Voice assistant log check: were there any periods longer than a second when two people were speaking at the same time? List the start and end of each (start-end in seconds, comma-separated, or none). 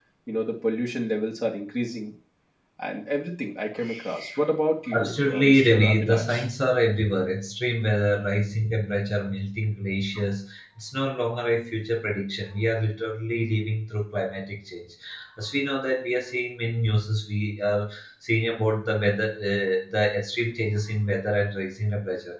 5.0-6.5